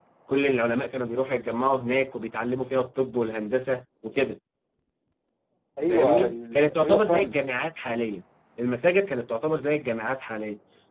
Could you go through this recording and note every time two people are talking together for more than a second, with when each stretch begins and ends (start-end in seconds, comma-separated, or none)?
5.9-7.4